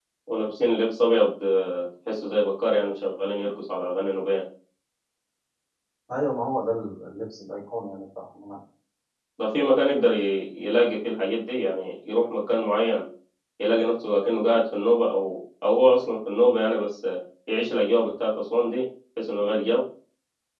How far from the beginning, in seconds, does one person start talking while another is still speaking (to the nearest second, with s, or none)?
none